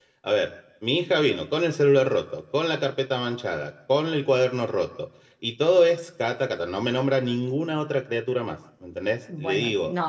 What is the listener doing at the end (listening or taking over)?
taking over